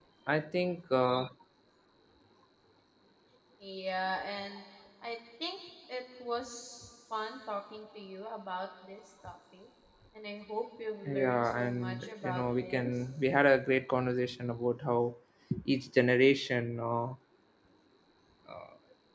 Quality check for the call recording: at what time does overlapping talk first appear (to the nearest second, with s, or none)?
11 s